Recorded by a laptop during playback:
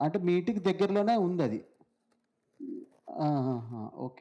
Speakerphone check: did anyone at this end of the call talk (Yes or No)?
Yes